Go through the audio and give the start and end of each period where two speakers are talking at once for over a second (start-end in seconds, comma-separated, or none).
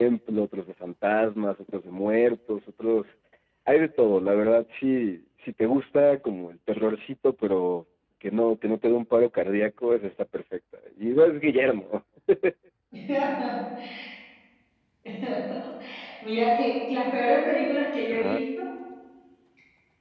none